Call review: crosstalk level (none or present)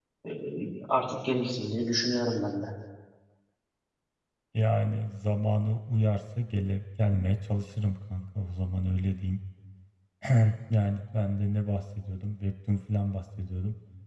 none